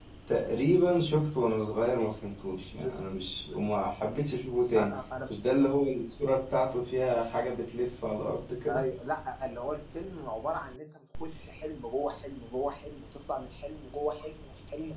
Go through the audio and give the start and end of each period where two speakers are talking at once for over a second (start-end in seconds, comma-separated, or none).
none